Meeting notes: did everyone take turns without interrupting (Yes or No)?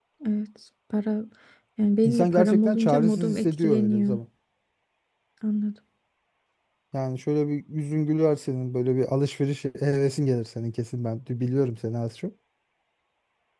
No